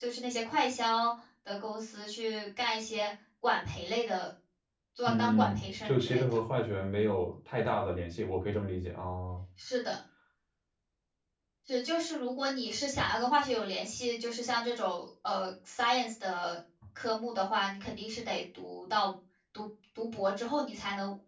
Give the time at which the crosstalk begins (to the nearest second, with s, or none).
5 s